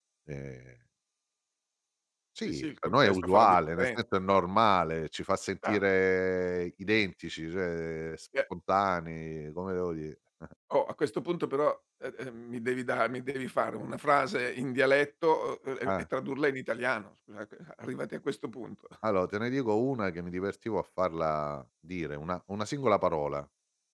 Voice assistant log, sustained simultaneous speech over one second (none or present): present